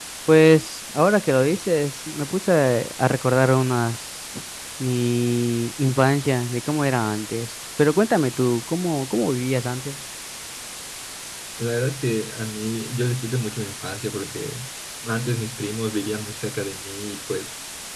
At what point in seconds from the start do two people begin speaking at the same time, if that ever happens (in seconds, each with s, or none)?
none